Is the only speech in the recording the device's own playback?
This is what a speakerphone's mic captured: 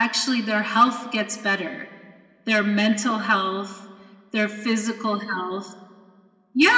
Yes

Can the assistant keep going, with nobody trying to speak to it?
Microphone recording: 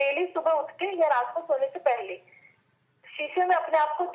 Yes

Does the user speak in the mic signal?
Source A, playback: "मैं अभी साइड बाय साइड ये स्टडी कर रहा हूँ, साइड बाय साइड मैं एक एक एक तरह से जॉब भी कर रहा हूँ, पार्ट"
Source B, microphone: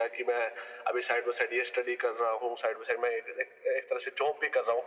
No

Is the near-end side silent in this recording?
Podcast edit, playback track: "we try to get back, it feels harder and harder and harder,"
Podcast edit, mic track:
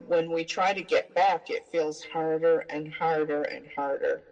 Yes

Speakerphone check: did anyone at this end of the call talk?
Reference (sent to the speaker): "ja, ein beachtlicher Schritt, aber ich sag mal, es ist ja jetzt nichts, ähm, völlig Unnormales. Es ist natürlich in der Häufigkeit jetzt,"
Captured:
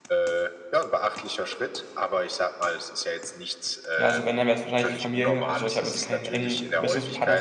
Yes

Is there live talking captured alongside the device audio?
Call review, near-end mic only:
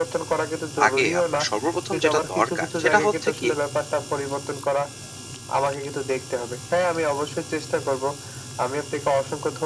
Yes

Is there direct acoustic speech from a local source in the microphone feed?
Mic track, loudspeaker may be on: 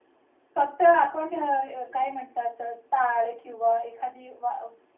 No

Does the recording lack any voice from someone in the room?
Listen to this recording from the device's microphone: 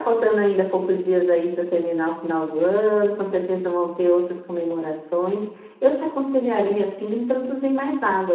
Yes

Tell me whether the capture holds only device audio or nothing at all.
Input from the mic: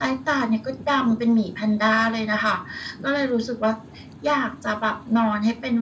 Yes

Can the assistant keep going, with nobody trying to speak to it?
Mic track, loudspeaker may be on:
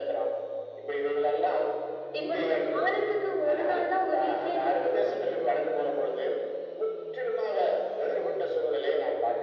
Yes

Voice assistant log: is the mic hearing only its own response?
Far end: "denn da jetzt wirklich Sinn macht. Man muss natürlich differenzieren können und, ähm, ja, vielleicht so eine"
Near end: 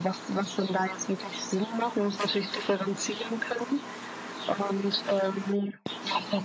Yes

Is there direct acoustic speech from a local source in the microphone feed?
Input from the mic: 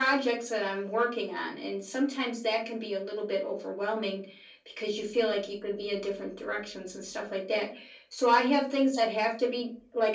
No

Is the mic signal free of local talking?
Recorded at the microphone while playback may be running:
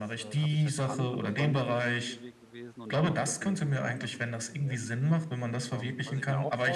No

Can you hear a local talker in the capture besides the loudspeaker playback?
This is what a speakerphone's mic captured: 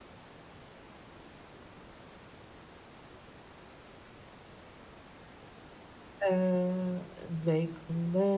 Yes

